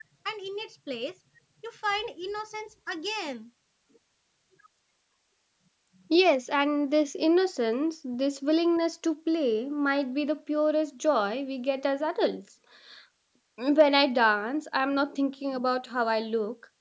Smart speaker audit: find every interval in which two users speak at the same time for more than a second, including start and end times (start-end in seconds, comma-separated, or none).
none